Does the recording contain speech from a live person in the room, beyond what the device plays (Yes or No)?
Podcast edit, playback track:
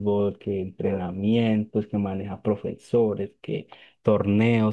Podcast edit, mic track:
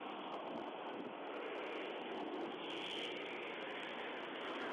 No